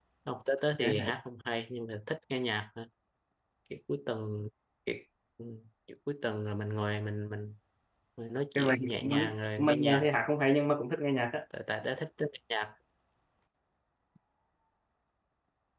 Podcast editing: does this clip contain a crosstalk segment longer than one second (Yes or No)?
Yes